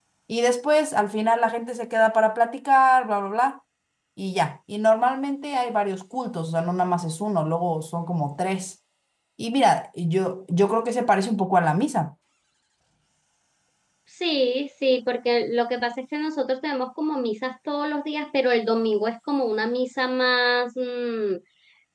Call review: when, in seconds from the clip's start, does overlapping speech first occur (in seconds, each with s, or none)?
none